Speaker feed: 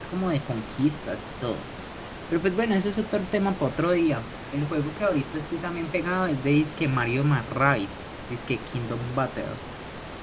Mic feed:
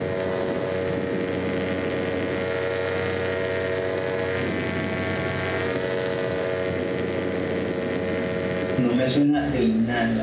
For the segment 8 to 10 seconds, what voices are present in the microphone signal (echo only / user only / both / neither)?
user only